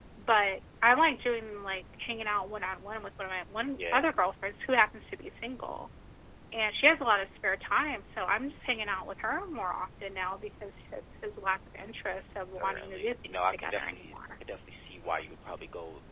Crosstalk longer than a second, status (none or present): present